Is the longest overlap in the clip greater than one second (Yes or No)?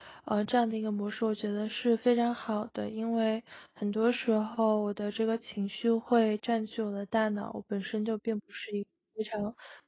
No